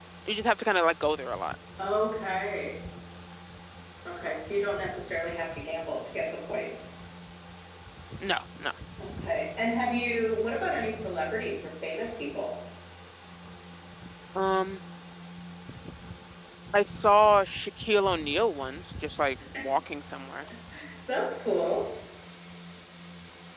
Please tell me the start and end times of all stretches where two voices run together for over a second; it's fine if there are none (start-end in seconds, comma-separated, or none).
none